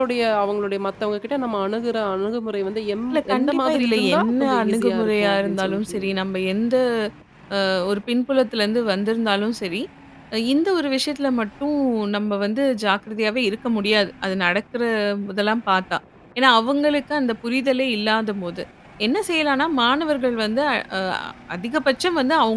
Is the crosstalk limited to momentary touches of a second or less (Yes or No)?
No